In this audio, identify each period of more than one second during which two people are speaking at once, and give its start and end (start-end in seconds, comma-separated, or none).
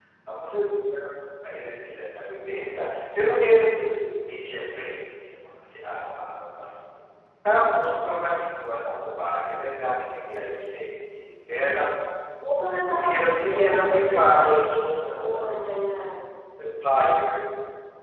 12.9-15.6